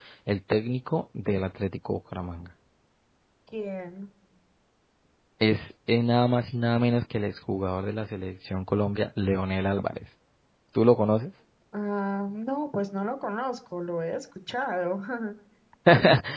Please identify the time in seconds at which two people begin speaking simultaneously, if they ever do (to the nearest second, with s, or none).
none